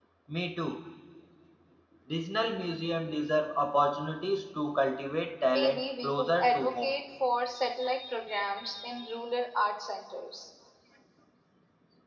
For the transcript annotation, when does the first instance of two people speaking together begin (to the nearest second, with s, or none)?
5 s